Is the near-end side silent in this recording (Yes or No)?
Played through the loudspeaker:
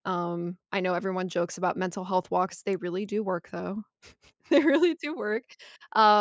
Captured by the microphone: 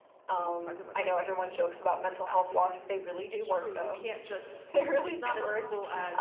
No